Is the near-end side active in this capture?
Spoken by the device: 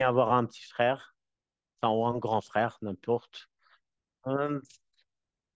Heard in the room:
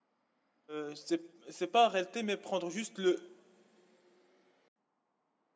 Yes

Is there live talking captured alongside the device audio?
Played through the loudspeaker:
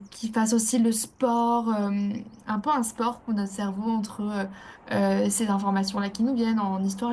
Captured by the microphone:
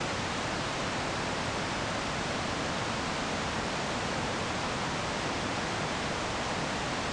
No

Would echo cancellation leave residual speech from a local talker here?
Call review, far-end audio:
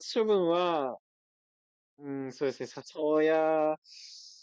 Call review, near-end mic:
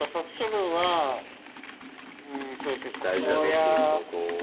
Yes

